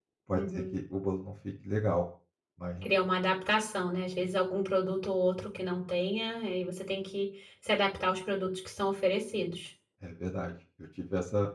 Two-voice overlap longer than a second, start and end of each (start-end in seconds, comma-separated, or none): none